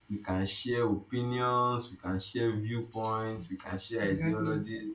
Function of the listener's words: listening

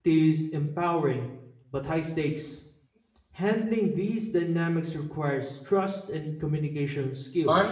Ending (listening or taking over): taking over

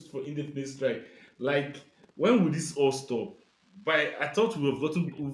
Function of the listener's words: listening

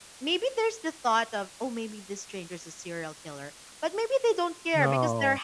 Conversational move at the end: listening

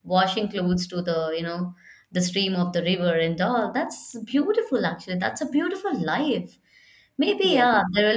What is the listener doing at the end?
listening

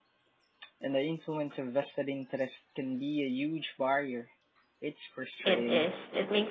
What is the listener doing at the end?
taking over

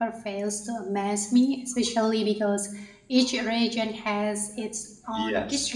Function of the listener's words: listening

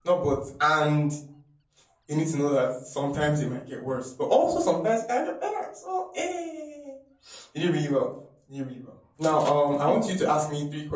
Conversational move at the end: listening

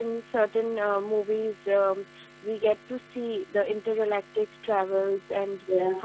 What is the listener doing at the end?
listening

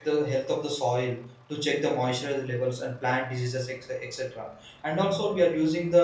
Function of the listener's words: listening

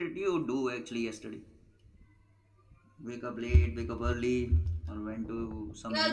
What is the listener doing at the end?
taking over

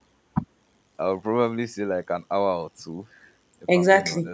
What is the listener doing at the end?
taking over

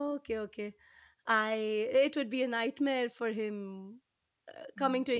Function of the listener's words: listening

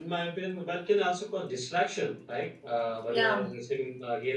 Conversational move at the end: listening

